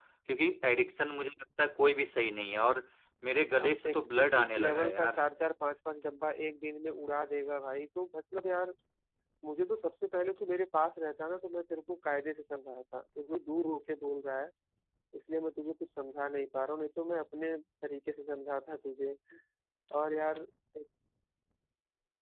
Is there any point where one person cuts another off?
Yes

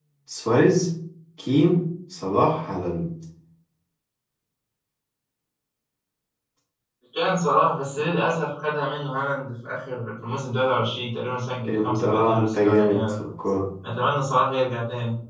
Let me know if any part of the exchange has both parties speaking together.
Yes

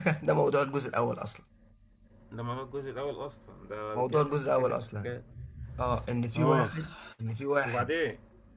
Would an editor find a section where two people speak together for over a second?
Yes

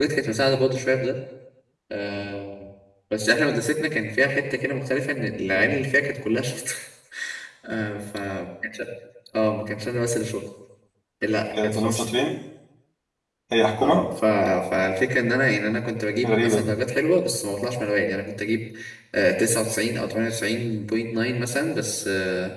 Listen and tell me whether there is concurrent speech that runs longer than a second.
No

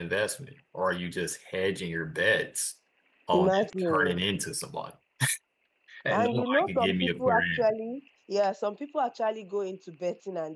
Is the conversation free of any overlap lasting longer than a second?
No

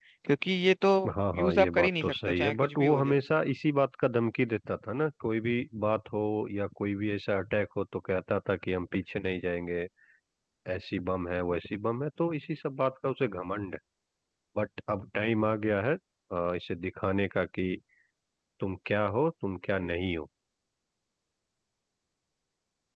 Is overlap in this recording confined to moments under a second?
No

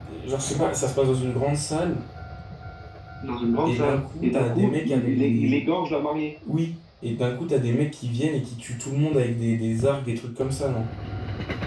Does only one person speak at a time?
No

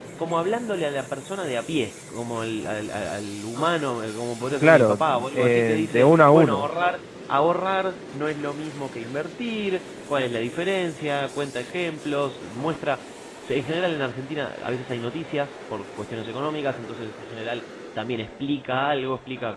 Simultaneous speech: Yes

